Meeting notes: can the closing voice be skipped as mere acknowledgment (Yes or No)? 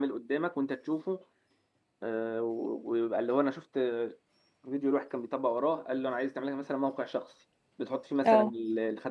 Yes